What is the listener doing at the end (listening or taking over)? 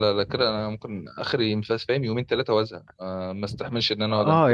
taking over